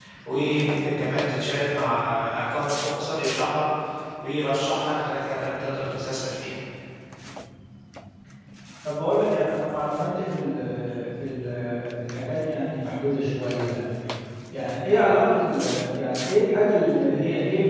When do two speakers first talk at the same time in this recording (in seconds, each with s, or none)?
none